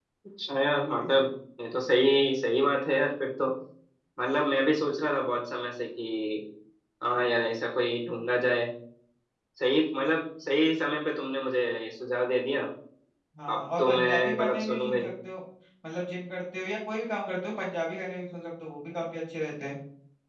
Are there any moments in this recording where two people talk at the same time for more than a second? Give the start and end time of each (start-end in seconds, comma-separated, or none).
13.5-15.1